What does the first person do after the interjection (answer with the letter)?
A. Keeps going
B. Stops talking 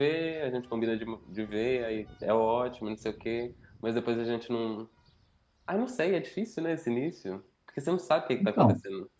A